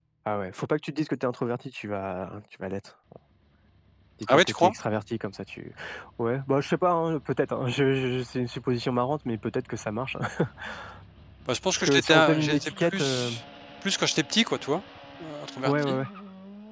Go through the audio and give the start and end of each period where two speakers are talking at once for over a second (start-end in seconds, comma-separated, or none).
11.8-13.3